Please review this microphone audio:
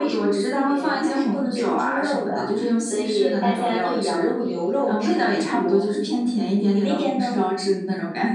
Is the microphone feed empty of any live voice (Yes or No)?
Yes